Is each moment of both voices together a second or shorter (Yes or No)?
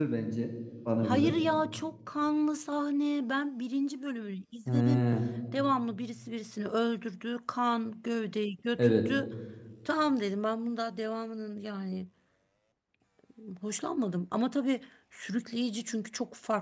Yes